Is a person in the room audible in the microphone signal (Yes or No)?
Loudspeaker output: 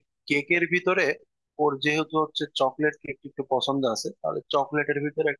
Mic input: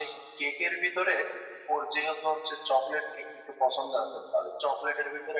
No